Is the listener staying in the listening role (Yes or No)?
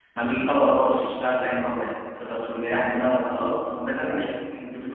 Yes